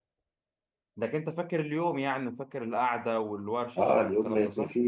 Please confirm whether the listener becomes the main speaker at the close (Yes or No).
Yes